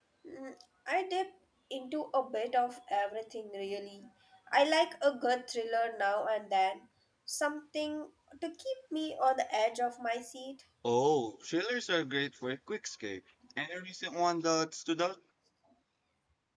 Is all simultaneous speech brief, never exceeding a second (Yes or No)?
Yes